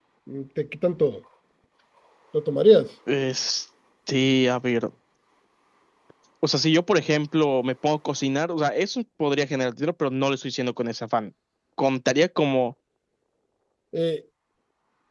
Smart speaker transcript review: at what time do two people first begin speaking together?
none

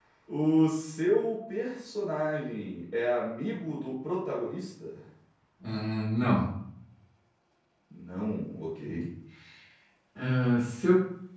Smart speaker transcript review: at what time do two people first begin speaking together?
none

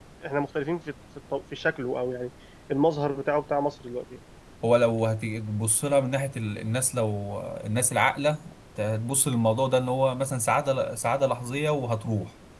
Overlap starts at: none

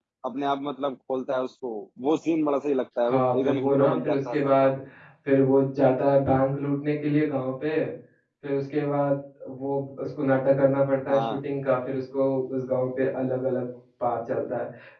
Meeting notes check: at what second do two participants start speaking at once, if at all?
3.1 s

